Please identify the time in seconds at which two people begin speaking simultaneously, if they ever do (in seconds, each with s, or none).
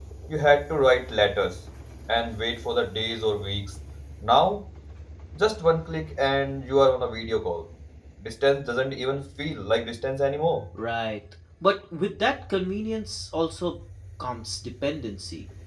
none